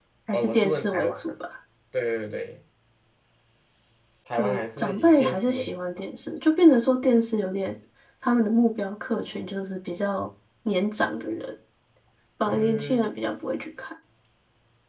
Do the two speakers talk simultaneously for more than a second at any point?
Yes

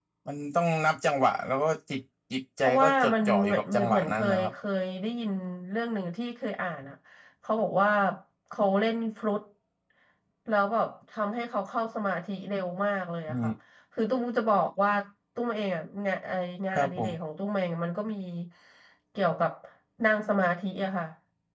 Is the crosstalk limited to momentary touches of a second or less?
No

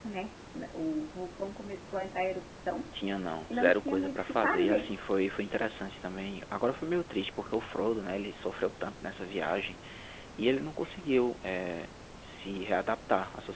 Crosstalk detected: Yes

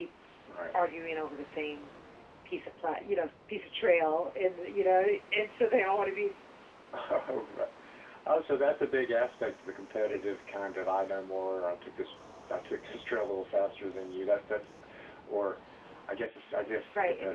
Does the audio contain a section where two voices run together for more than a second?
No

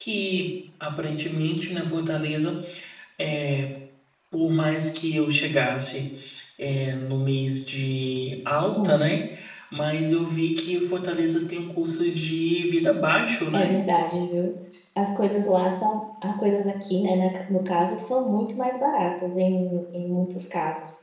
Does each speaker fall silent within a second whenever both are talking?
Yes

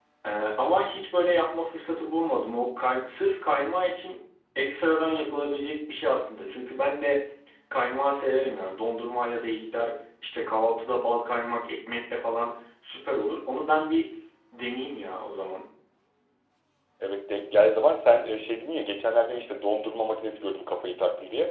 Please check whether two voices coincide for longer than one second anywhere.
No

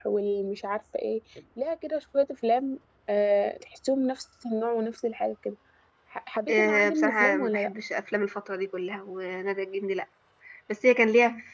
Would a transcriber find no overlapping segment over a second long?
No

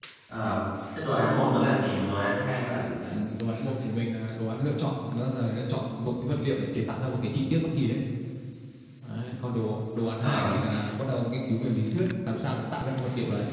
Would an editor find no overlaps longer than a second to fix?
Yes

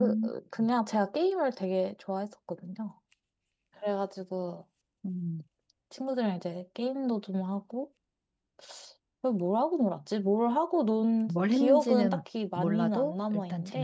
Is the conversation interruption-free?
No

